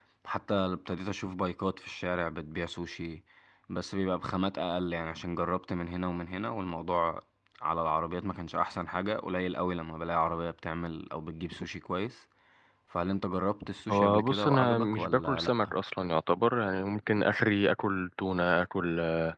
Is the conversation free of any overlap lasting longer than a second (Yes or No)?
No